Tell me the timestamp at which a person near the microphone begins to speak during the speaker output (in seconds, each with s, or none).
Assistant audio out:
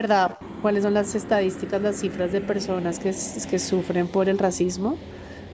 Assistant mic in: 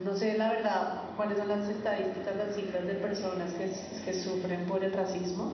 none